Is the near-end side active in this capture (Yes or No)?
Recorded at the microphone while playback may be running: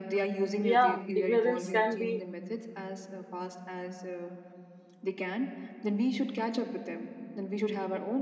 Yes